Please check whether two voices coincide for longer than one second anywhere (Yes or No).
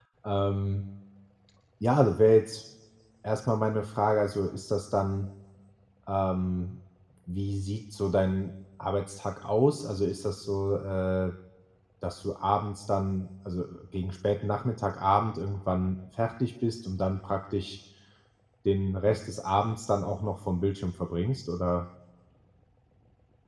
No